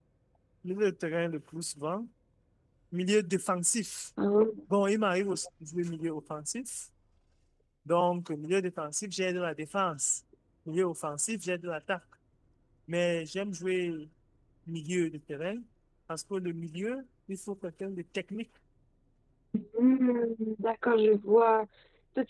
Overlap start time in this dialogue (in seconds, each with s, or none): none